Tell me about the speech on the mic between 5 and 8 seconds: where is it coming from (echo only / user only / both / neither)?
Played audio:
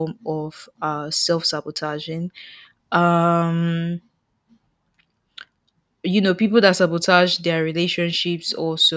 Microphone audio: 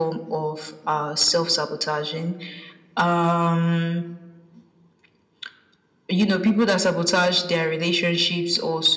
echo only